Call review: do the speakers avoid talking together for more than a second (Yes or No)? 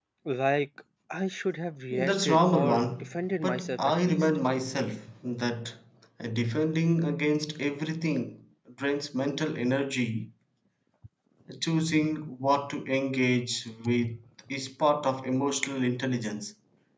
No